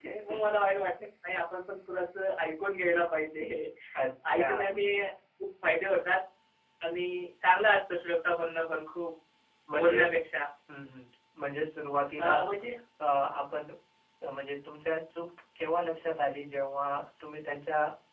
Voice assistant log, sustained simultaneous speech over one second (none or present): none